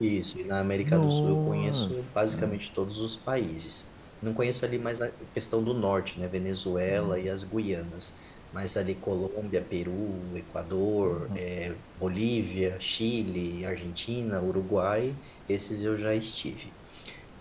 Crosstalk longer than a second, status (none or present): present